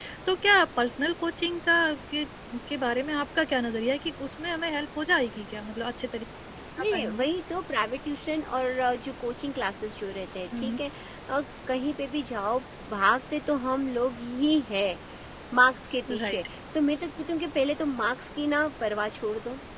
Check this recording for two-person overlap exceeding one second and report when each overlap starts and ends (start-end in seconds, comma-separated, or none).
none